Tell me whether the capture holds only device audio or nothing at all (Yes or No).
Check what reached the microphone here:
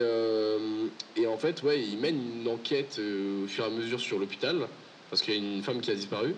Yes